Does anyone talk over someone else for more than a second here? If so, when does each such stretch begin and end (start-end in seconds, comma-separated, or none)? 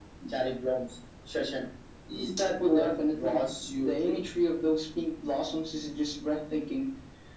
2.6-4.2